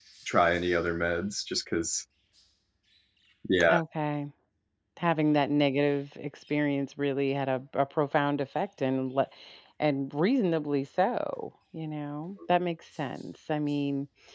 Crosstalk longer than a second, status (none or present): none